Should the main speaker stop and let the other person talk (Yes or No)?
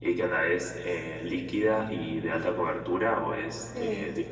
Yes